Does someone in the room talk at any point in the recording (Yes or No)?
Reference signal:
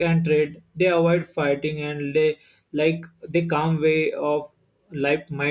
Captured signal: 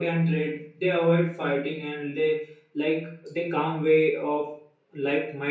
No